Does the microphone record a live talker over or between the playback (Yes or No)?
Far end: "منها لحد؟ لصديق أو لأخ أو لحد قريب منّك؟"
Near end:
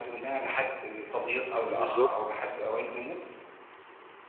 Yes